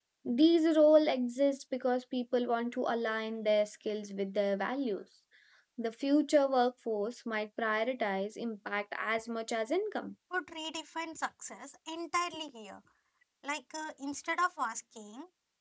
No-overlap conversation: Yes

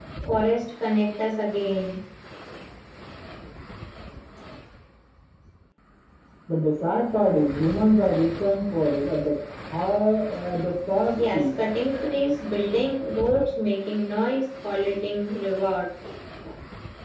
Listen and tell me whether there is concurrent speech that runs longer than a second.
No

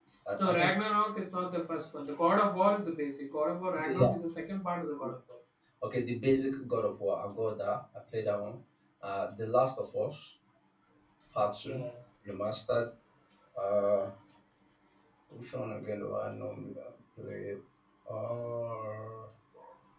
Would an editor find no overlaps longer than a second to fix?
Yes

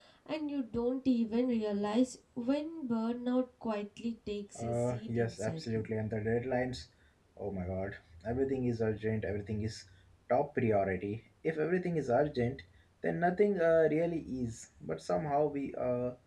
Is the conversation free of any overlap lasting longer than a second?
No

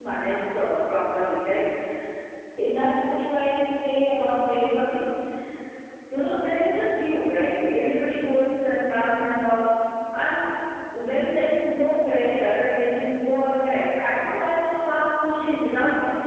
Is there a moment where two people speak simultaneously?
No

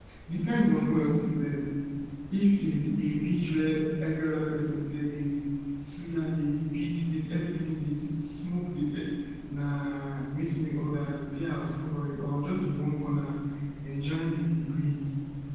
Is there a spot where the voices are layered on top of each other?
No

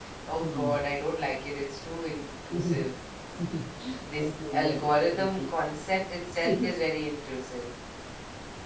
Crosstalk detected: Yes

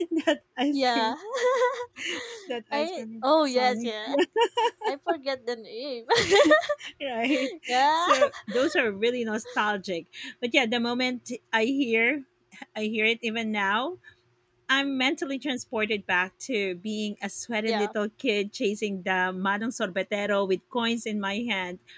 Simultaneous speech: Yes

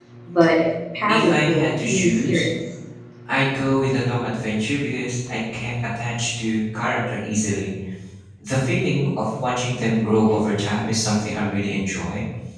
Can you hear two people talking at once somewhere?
Yes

